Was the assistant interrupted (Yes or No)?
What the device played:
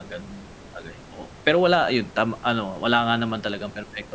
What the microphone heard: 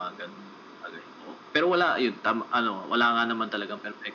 No